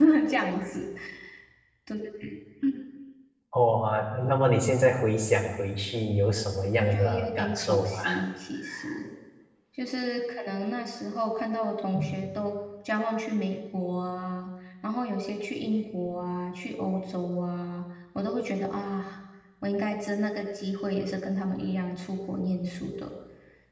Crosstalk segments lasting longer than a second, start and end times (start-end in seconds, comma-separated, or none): 6.8-8.0